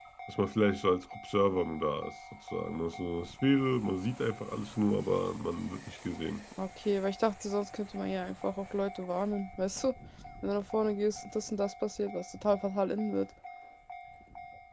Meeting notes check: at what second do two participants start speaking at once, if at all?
none

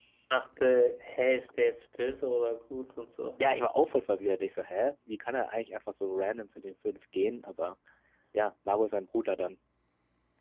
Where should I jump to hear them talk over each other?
none

